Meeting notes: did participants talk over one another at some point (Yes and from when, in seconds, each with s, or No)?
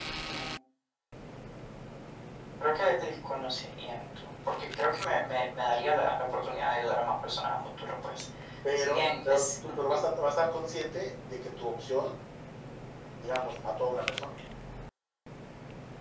Yes, from 8.8 s